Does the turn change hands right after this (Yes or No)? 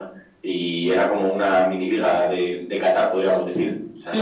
Yes